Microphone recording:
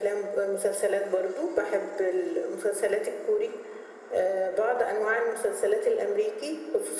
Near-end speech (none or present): none